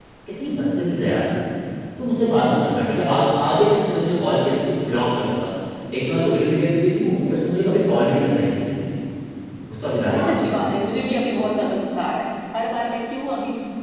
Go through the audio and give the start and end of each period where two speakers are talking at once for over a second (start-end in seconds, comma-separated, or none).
none